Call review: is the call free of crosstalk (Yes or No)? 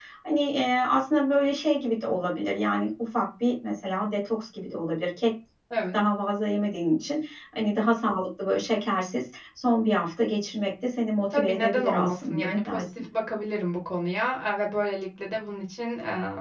No